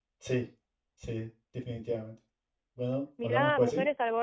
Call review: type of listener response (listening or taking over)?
taking over